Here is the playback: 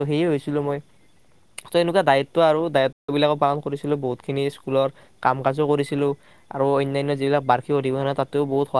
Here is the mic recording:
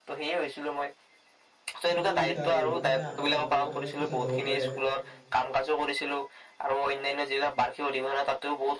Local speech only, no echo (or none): প্ৰতিযোগিতা আৰু কোনে আগত হ'ব পাৰে। কোনে পিছত হ'ব পাৰে